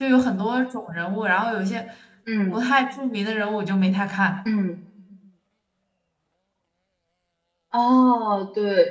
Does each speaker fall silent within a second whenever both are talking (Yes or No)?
Yes